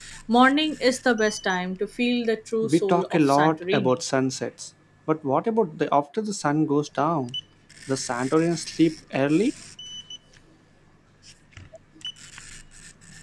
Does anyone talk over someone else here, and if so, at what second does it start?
2.6 s

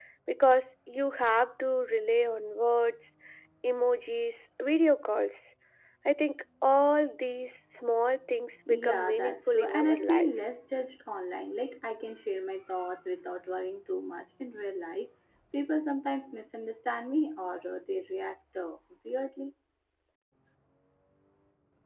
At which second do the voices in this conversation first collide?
8.7 s

